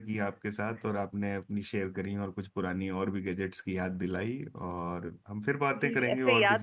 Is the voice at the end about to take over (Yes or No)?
Yes